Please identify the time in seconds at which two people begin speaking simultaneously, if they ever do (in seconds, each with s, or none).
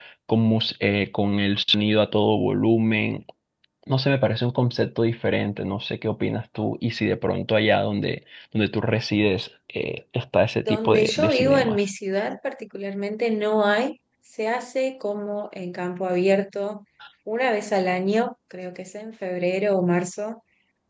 10.6 s